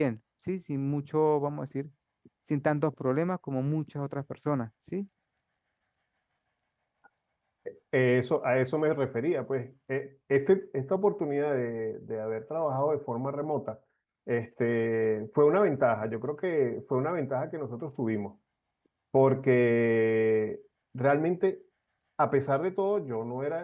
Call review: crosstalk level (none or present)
none